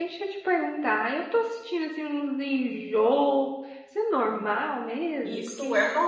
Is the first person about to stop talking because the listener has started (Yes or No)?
Yes